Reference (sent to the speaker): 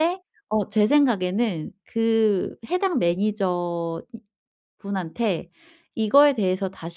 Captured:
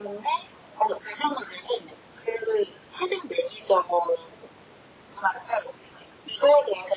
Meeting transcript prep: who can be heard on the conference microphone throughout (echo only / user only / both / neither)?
echo only